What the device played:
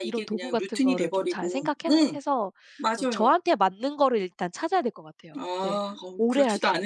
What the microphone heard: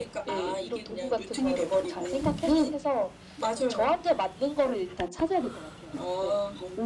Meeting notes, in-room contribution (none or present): none